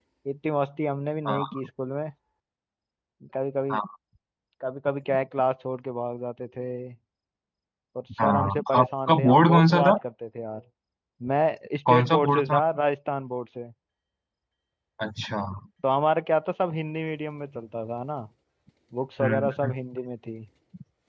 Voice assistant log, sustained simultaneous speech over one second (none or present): present